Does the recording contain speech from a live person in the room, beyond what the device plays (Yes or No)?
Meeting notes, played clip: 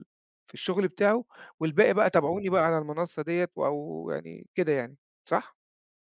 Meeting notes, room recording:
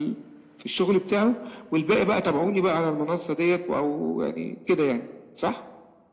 No